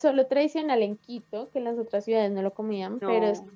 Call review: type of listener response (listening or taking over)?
listening